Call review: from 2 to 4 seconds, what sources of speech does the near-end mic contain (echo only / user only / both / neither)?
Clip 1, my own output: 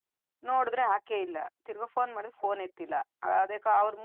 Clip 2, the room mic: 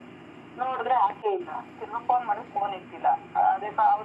echo only